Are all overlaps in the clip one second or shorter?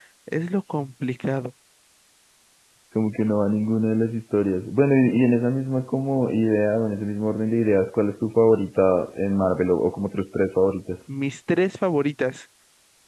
Yes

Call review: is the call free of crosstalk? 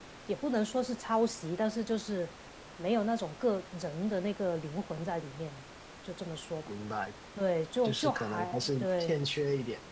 No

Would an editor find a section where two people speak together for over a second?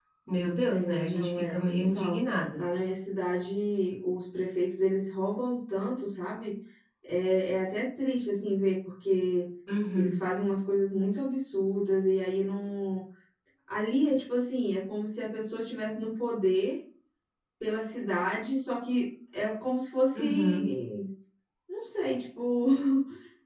Yes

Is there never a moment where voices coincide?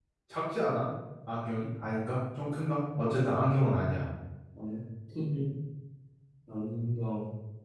Yes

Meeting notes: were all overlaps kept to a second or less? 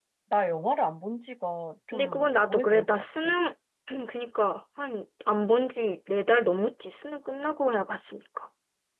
No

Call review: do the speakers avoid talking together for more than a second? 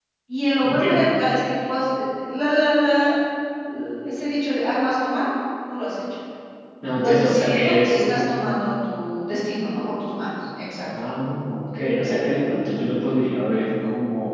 No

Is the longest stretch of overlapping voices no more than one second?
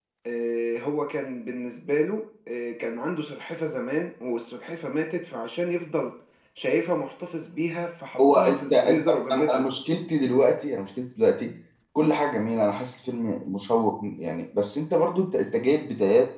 No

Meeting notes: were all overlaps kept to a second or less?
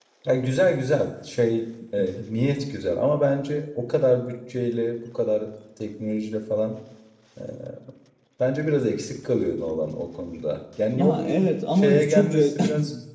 No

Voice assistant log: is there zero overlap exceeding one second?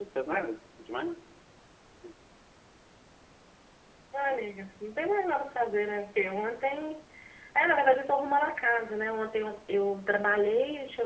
Yes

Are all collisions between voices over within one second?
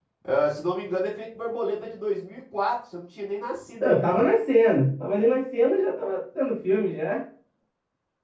Yes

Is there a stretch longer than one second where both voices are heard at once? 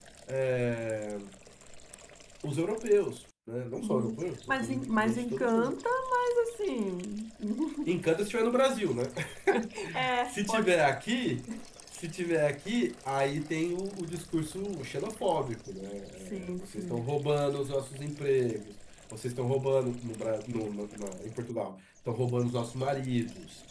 Yes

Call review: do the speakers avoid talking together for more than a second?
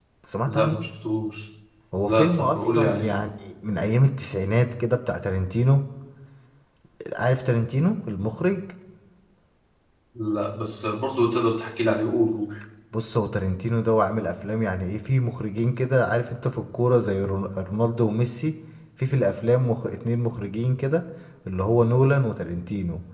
No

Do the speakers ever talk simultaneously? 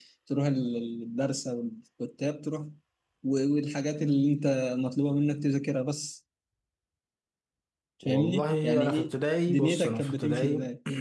Yes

